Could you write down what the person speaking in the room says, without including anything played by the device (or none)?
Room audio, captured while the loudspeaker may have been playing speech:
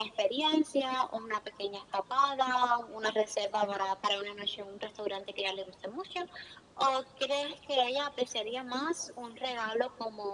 none